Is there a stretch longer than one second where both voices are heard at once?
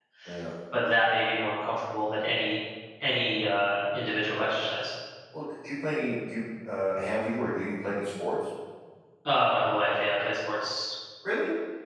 No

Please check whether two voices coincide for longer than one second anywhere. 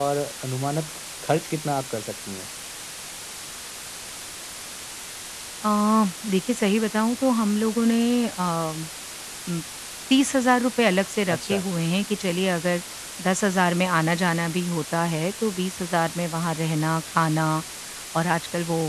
No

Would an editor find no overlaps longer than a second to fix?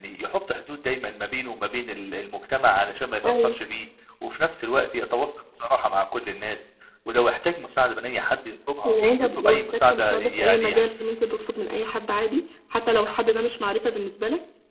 No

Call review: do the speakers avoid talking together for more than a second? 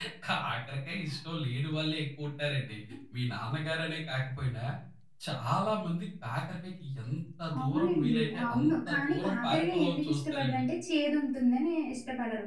No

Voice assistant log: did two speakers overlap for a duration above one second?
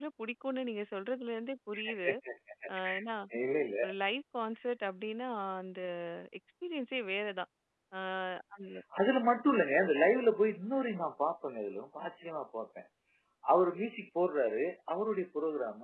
No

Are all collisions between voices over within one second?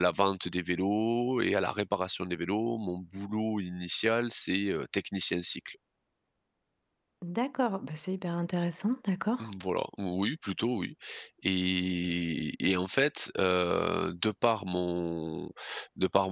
Yes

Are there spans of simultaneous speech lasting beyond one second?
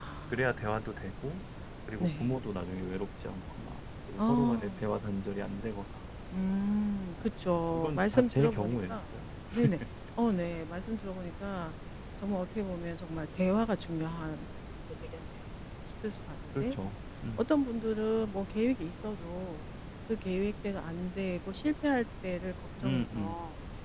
Yes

